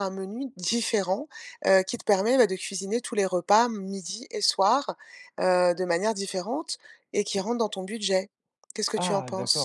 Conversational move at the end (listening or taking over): taking over